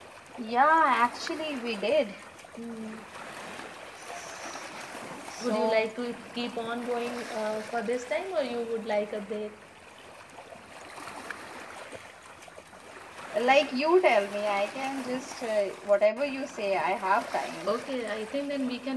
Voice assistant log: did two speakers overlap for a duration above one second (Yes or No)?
No